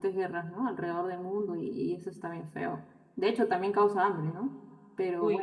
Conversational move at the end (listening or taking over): listening